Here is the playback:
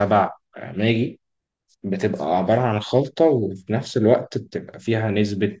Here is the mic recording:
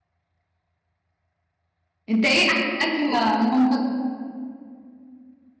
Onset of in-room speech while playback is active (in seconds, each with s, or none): 2.1 s